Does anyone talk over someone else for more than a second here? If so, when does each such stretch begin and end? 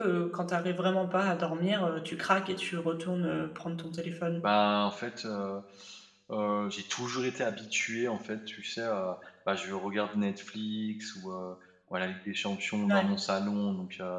none

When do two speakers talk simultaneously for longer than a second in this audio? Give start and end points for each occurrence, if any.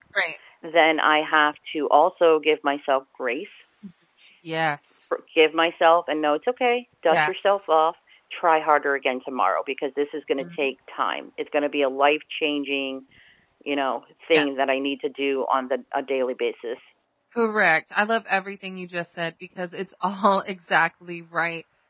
none

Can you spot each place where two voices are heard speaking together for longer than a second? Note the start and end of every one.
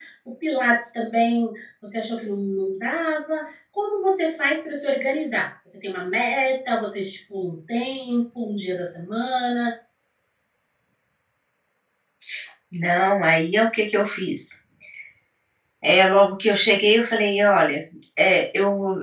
none

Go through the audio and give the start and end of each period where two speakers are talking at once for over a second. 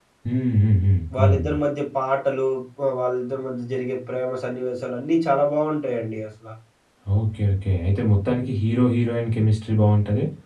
none

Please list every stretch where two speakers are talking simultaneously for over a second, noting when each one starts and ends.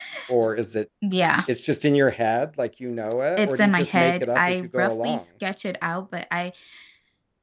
3.4-5.2

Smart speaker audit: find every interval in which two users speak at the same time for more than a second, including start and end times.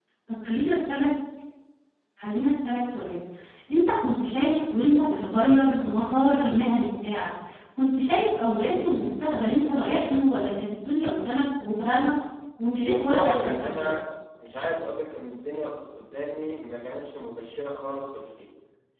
12.8-14.0

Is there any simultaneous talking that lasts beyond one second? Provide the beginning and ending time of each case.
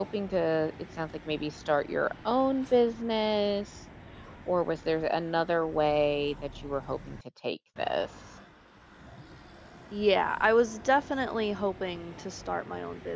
none

